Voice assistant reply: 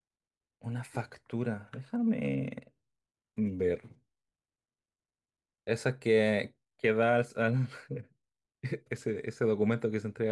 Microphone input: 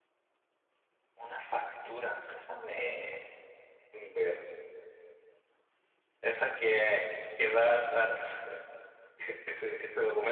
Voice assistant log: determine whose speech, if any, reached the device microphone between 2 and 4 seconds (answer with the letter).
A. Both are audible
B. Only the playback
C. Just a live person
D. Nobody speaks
B